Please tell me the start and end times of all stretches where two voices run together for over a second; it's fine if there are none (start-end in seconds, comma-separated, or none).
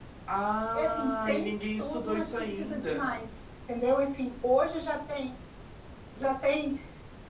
0.7-3.2